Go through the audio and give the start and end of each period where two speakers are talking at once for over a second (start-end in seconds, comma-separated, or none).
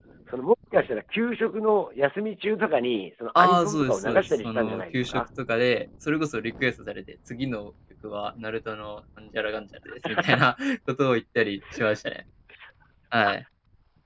3.4-5.2